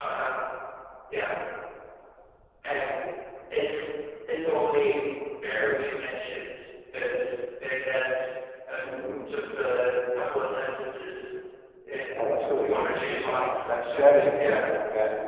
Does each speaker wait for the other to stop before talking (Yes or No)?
No